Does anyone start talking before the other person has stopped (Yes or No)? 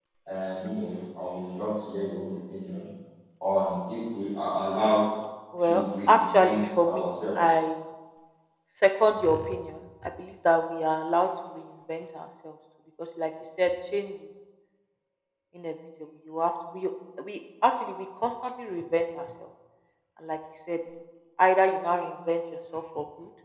Yes